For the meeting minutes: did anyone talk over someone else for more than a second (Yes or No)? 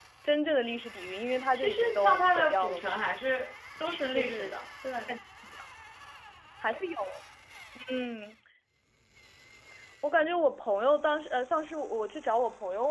Yes